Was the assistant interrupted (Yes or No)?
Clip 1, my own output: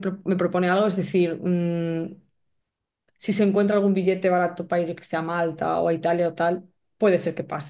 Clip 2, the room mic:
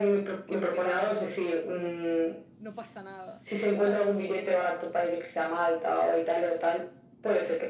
Yes